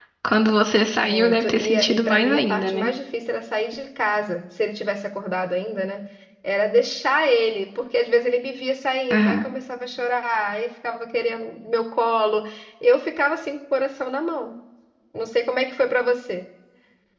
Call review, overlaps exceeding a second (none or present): present